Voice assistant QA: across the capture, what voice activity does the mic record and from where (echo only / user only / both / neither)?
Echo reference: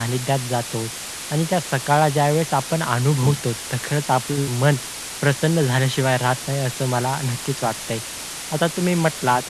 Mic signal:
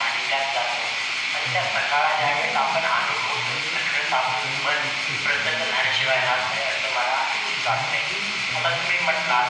both